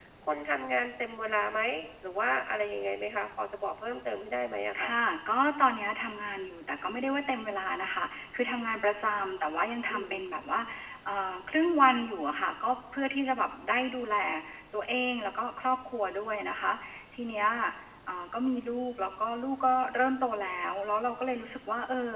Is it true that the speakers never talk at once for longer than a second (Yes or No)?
Yes